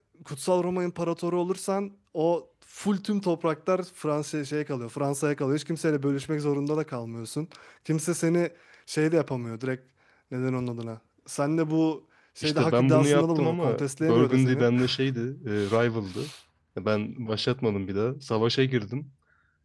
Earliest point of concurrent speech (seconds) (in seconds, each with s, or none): 12.4 s